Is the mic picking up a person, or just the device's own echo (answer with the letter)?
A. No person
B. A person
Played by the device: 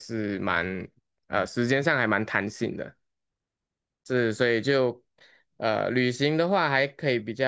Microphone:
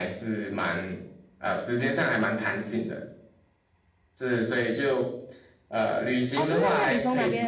B